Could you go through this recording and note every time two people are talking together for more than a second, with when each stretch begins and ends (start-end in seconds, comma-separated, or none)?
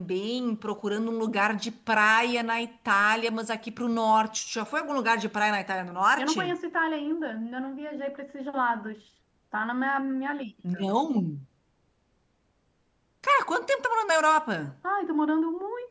none